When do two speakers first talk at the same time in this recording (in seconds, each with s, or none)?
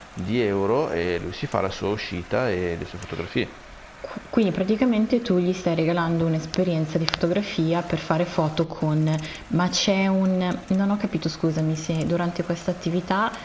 none